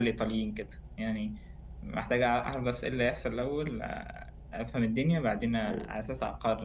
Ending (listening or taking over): listening